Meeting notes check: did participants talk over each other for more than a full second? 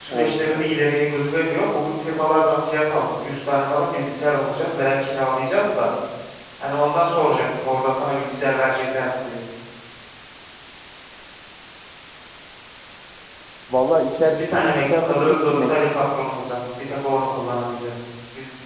Yes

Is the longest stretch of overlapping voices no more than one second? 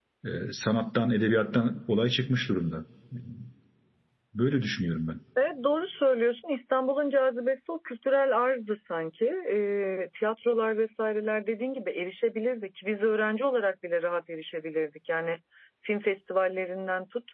Yes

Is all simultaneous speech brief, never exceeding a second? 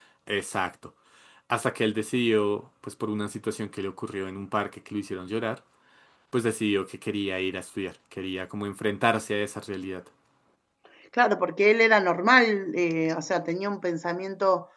Yes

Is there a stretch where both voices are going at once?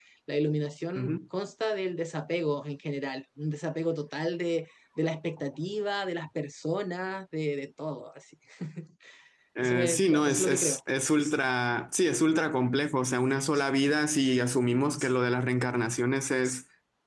Yes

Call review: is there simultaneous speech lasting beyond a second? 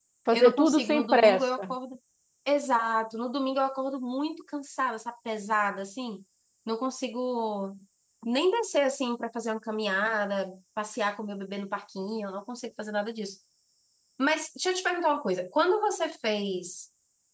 Yes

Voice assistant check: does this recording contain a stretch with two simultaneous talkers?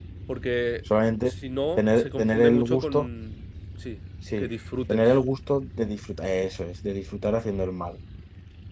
Yes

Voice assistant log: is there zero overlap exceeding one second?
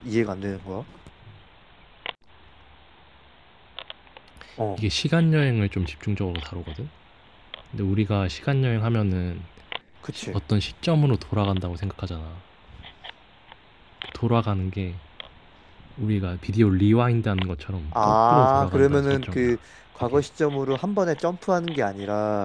No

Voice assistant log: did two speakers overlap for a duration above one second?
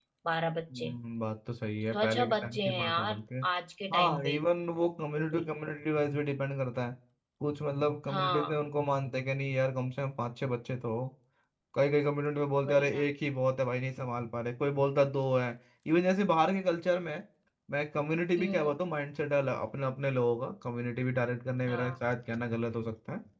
Yes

